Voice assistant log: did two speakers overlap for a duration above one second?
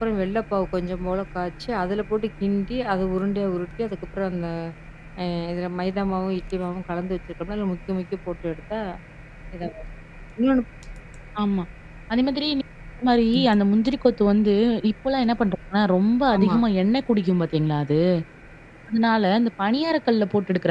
No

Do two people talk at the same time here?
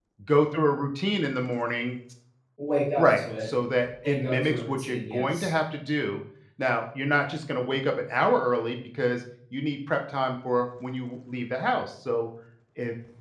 Yes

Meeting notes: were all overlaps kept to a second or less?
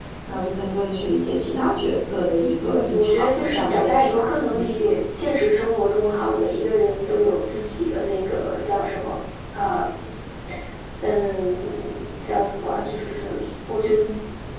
No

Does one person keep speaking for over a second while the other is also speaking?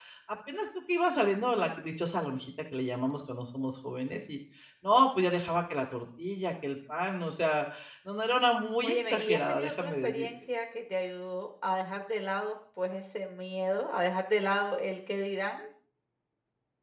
Yes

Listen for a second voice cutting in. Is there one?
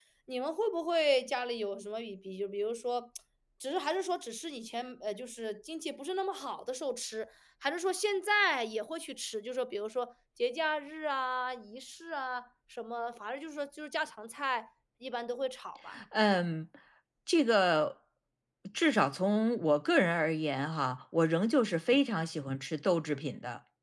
No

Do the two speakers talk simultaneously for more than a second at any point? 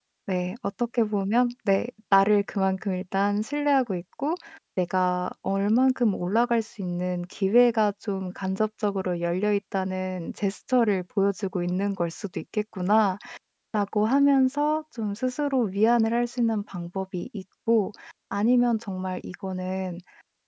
No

